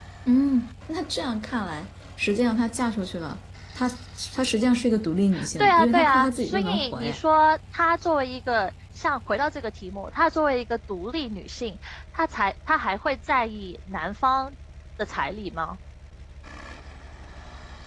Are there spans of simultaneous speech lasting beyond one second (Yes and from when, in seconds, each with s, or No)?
Yes, from 5.6 s